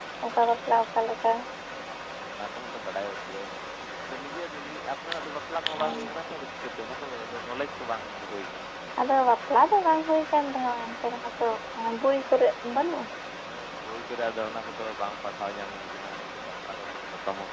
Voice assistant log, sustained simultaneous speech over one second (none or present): none